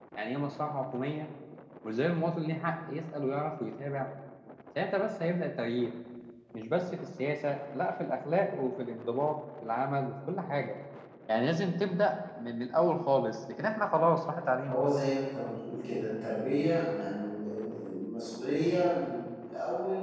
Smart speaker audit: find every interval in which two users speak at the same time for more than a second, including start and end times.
none

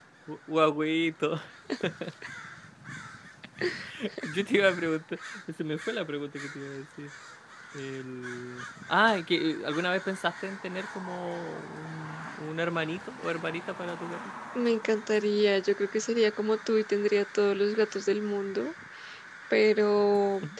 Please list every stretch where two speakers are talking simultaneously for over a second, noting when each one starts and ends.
none

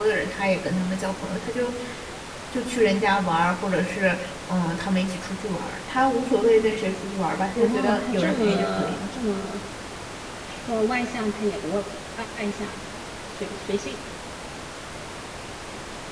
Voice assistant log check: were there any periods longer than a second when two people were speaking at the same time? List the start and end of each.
7.6-9.0

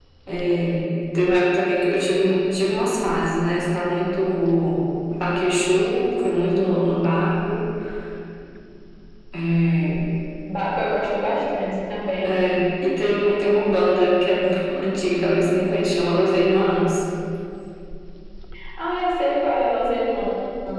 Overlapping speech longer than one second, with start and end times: none

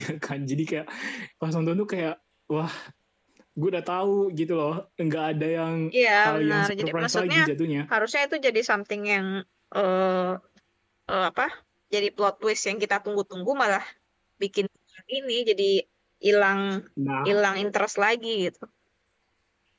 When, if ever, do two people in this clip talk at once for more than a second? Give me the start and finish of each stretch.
6.2-7.4

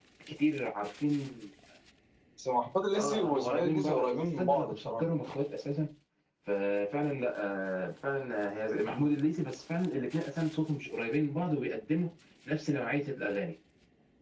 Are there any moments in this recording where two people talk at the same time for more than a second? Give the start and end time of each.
3.0-5.0

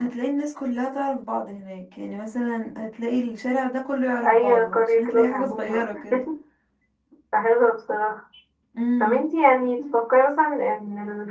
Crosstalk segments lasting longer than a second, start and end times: 4.2-5.9

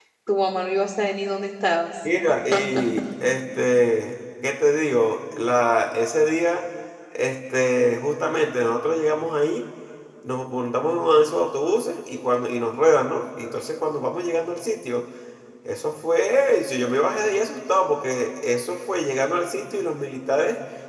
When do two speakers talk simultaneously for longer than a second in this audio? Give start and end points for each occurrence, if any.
none

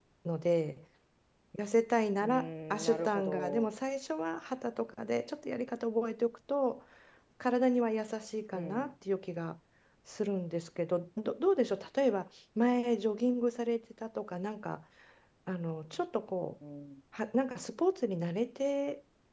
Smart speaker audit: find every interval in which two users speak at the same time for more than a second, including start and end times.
2.2-3.7

